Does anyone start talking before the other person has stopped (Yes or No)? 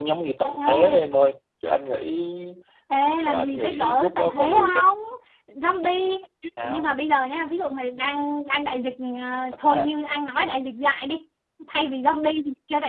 Yes